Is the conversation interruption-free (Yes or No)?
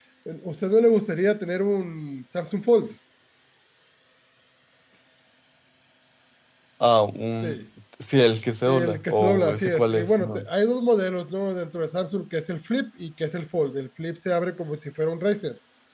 No